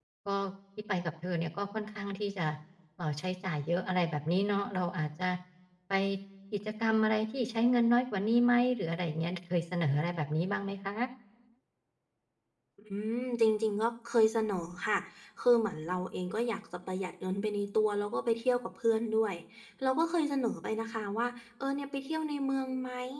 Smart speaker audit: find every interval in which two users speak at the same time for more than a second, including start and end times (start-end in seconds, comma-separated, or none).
none